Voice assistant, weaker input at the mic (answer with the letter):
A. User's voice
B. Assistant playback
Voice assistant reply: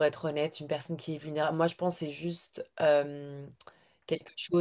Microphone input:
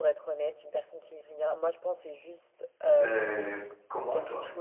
B